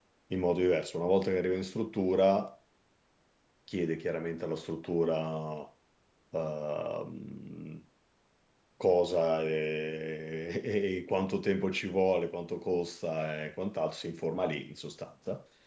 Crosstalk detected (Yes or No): No